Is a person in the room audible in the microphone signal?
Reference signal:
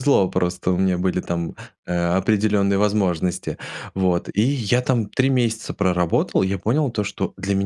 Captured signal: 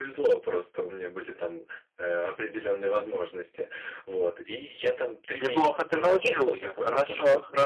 Yes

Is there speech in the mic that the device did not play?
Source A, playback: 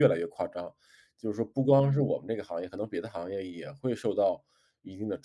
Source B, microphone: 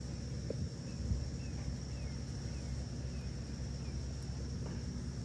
No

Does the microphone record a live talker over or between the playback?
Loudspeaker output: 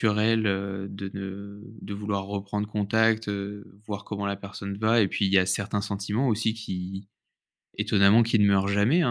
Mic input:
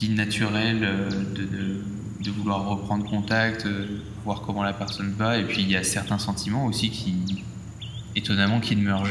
No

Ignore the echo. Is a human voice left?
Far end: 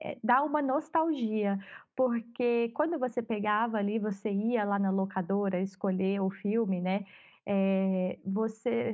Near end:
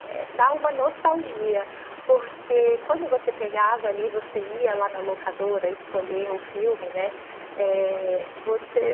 No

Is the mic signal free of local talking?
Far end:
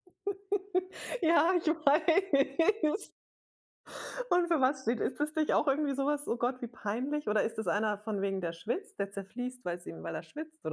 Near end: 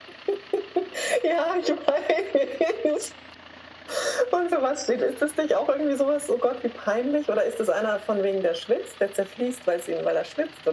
Yes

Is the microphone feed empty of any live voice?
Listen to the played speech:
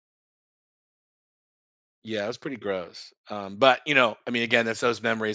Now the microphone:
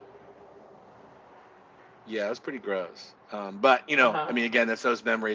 No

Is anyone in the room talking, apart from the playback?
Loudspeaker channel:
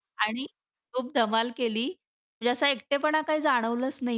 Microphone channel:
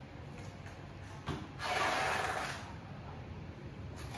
No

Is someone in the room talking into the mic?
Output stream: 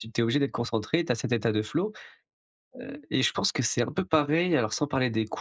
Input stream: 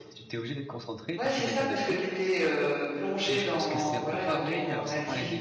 Yes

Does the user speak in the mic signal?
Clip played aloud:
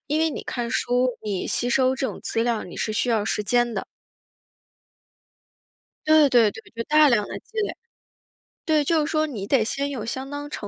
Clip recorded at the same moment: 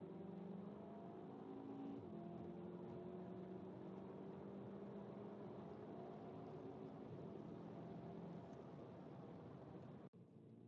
No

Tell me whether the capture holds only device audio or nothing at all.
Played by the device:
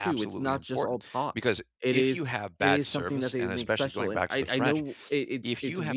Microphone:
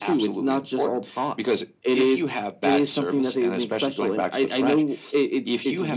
Yes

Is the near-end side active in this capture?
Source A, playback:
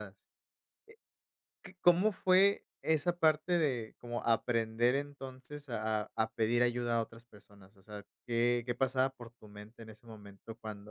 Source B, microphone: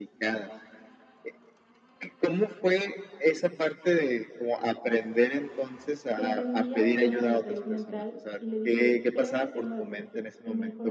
Yes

